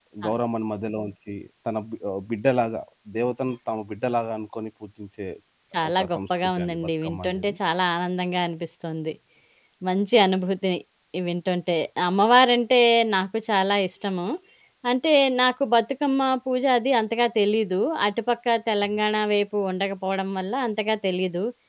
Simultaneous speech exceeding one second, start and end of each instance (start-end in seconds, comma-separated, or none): 6.0-7.5